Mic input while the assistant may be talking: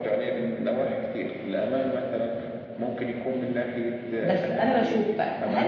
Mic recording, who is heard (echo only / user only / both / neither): both